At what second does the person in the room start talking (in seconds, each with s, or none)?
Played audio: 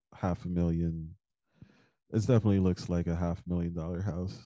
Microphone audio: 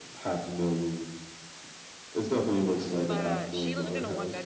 2.9 s